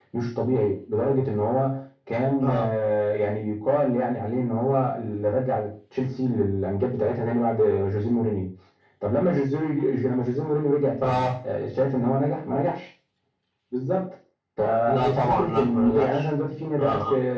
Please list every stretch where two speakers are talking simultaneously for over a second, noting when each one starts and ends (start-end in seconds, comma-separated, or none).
14.9-16.2